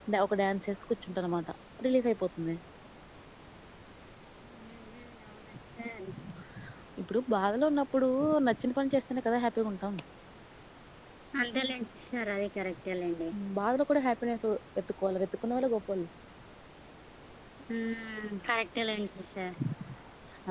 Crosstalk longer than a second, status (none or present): none